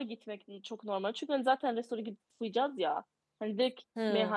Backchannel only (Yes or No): Yes